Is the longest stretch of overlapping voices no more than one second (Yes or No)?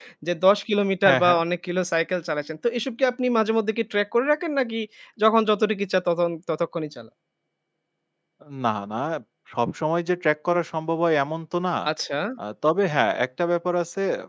Yes